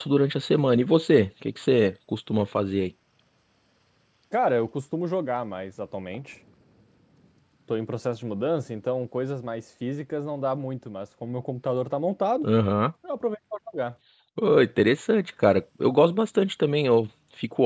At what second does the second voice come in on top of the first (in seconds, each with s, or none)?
none